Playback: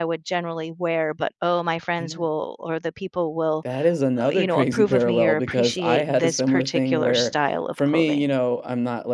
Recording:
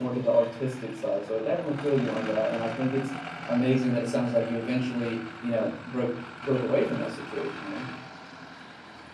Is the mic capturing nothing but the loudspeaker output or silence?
No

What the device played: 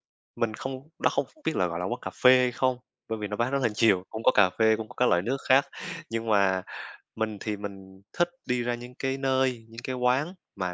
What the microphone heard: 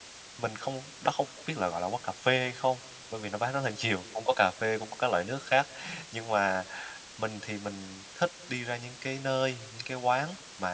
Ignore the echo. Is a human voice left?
No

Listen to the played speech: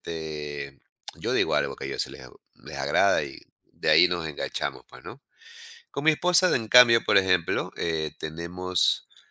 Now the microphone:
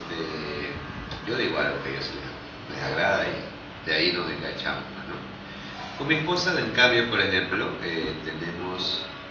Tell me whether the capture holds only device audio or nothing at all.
Yes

